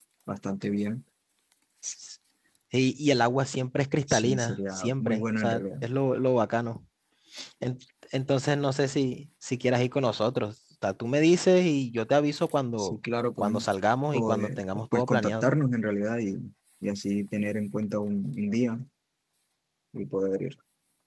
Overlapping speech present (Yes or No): Yes